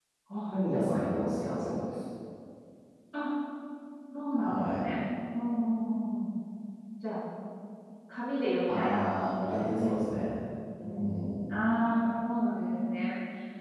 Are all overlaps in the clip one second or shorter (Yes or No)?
No